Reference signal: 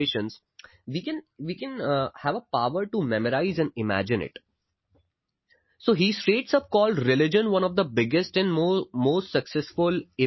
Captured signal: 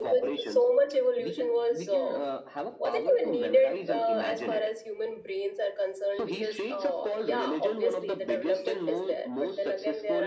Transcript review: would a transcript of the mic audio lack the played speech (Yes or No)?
No